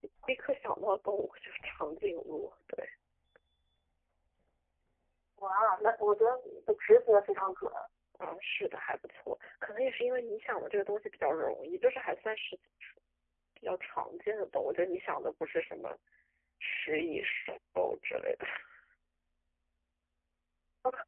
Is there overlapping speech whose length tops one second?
No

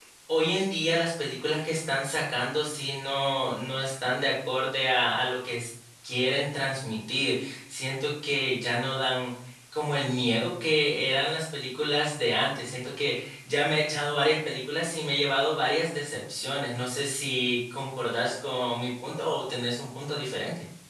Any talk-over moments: No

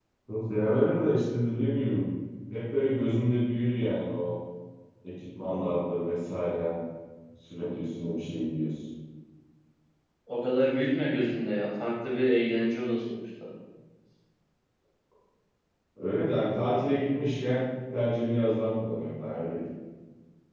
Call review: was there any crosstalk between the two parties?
No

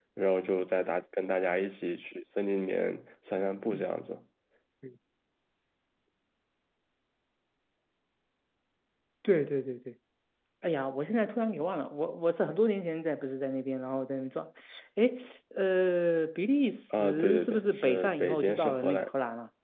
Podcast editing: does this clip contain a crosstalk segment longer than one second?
Yes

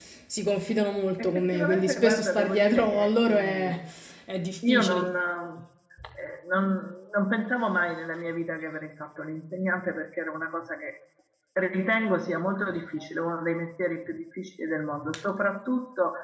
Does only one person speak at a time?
No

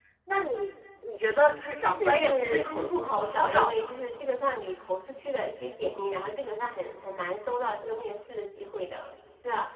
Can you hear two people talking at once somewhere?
Yes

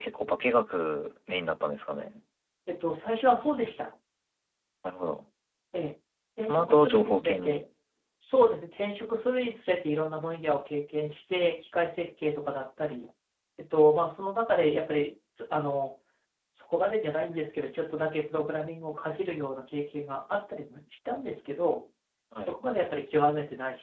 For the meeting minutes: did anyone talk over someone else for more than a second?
Yes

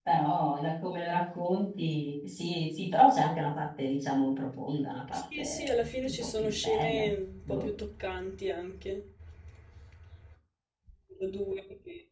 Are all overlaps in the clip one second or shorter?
No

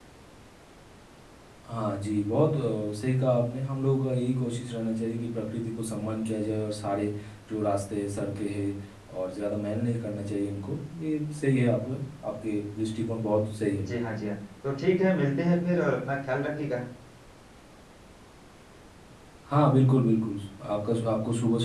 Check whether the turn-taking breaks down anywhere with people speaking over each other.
No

